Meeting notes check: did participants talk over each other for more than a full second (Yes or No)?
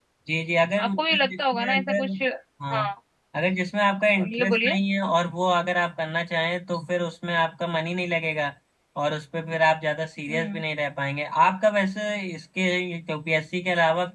Yes